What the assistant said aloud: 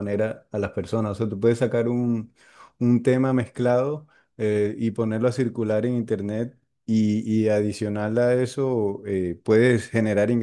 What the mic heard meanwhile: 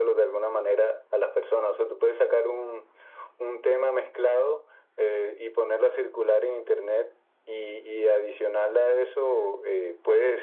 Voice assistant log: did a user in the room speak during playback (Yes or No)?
No